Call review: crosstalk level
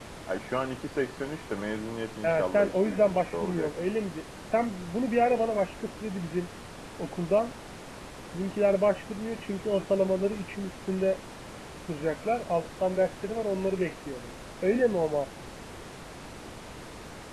present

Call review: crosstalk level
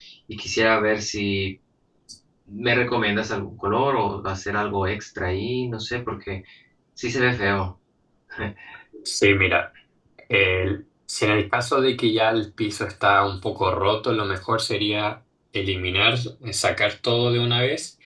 none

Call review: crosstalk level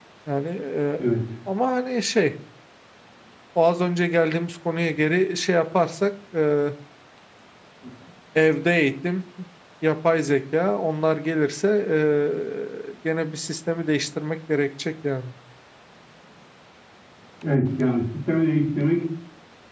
none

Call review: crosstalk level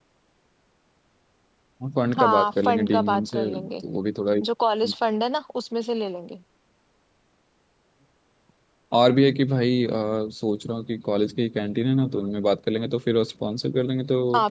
present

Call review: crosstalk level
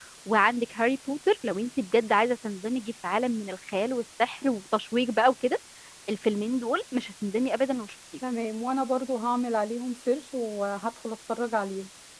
none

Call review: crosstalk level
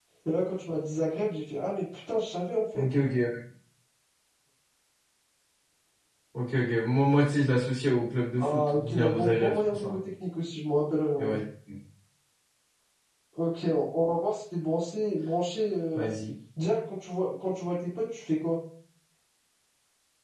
present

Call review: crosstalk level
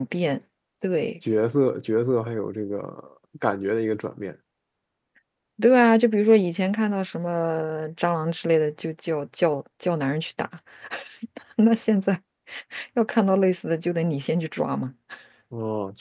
none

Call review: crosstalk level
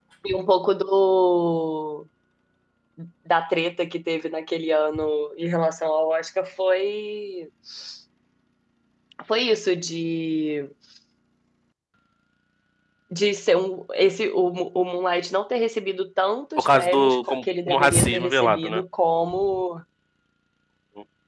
present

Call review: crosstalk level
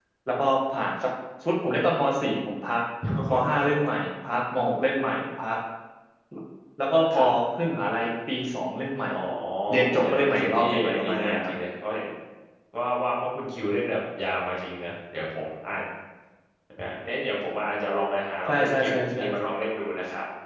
present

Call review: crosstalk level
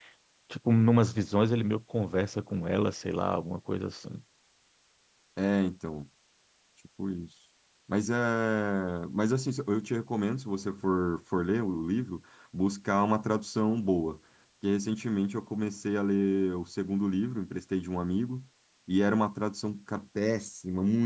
none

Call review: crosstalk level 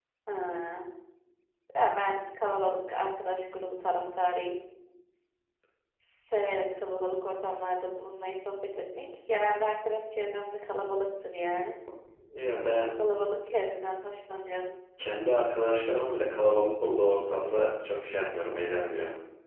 none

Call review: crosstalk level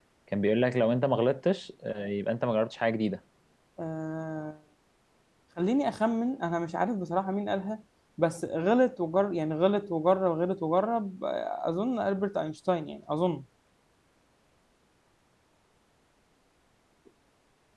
none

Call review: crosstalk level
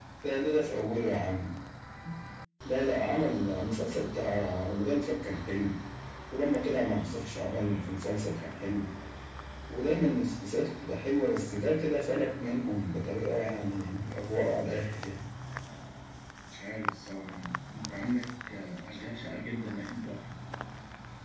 none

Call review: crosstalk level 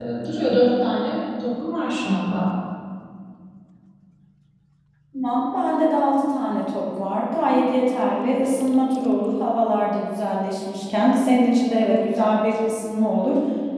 none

